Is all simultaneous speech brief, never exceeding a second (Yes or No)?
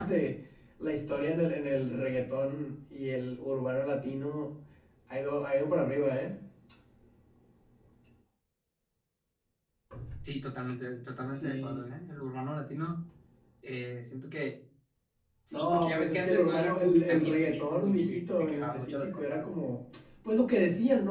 No